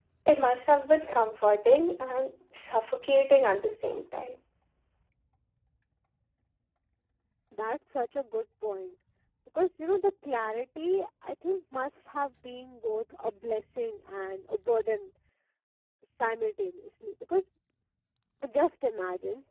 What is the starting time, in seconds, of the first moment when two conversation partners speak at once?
none

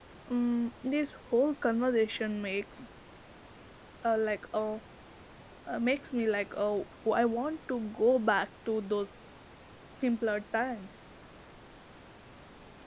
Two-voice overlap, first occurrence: none

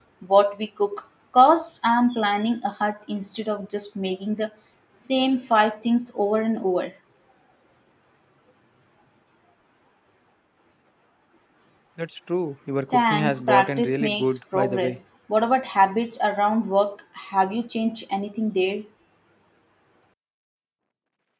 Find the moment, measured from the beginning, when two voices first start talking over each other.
12.9 s

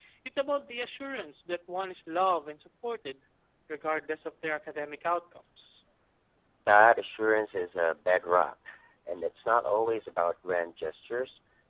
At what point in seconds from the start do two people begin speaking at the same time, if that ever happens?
none

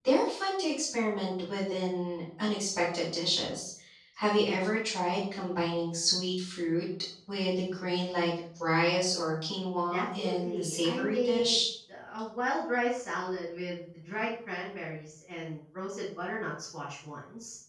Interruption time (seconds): 9.9 s

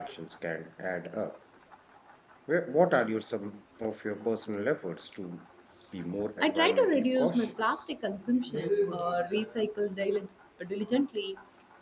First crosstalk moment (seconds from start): 6.4 s

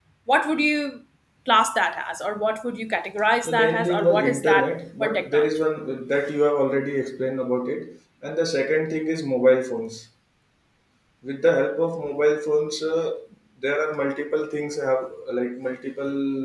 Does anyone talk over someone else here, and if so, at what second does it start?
3.5 s

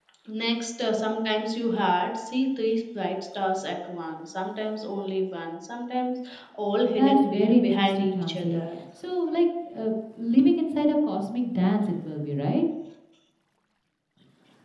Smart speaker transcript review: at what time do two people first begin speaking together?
7.0 s

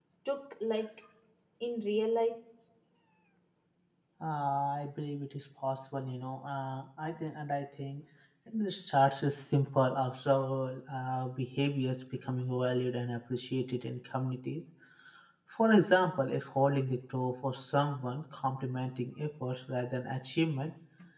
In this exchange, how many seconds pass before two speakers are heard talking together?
none

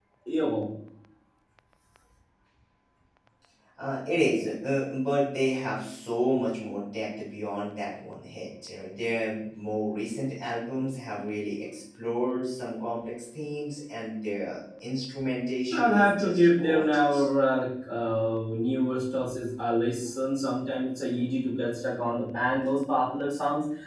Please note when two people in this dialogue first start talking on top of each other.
15.7 s

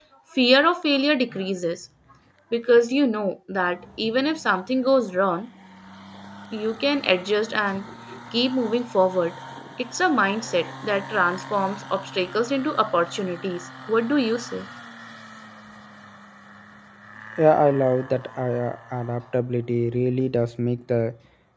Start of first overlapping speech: none

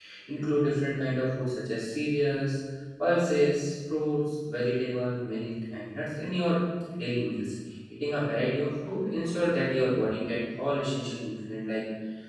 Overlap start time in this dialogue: none

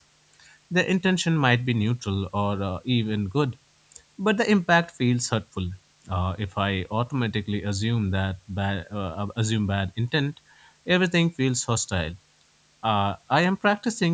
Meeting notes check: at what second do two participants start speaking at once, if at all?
none

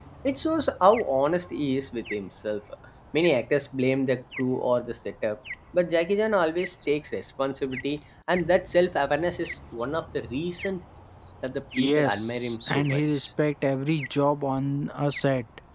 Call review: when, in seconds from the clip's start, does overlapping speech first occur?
11.8 s

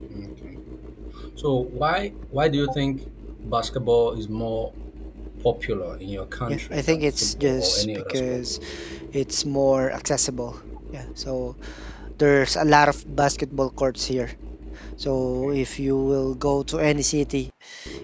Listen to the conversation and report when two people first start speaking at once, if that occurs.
6.5 s

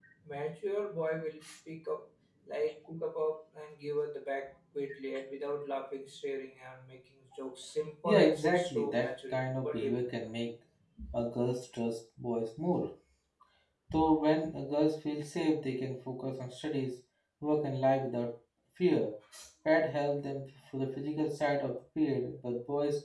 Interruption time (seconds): 8.1 s

